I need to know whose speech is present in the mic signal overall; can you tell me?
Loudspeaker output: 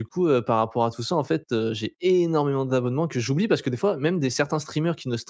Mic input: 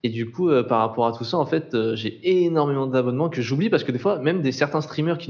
echo only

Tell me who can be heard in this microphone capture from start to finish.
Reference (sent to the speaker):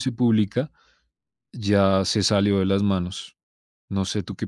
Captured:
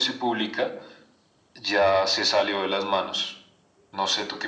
echo only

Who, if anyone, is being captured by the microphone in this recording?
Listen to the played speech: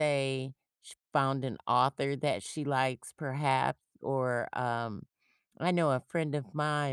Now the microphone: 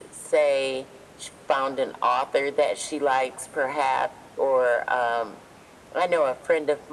echo only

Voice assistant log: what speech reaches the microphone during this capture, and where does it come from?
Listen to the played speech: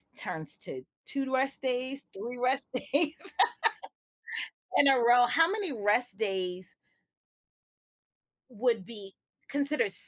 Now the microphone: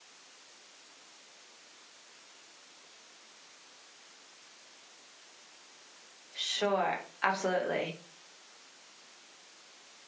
user only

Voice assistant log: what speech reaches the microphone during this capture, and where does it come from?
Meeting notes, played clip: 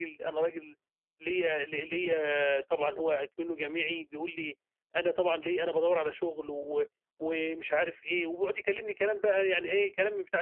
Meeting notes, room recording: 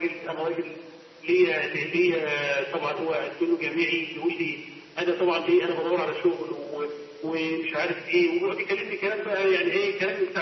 echo only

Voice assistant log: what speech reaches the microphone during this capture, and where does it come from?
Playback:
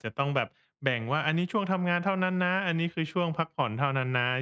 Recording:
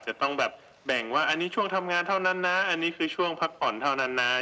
echo only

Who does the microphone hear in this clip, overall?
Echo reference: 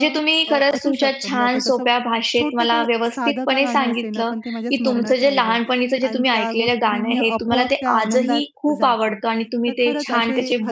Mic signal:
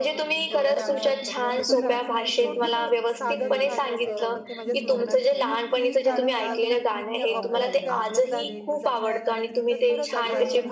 both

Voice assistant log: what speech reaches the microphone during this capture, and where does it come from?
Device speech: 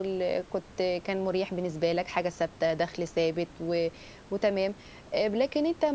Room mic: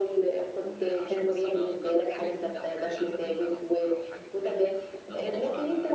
both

